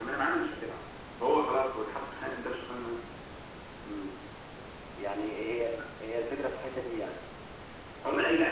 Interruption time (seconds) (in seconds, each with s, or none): none